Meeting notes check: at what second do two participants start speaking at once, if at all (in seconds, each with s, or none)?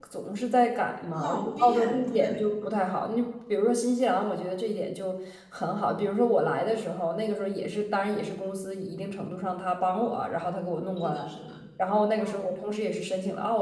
1.1 s